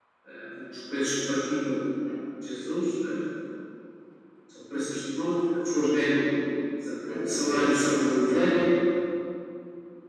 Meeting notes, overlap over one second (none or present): present